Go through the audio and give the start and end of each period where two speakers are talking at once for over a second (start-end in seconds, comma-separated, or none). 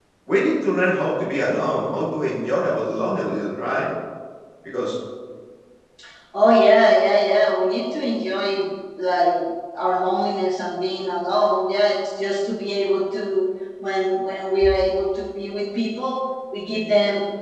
none